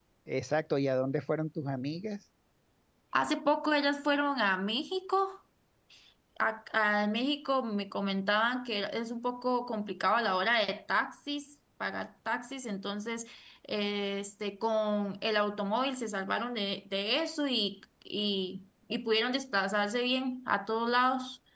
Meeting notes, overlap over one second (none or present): none